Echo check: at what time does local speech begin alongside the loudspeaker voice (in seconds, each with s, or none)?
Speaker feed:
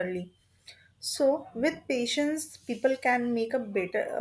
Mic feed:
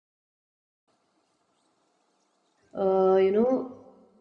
2.7 s